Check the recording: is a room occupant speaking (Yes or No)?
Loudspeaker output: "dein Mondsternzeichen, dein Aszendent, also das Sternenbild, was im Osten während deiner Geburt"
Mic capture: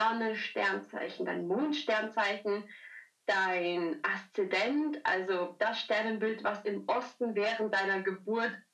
No